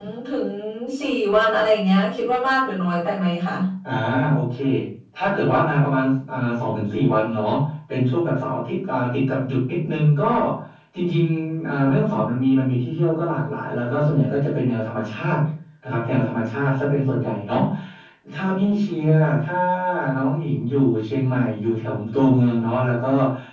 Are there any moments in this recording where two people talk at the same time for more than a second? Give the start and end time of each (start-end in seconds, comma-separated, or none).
none